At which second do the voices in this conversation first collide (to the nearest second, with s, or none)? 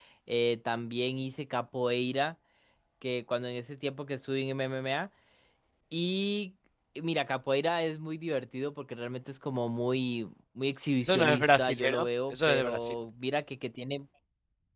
11 s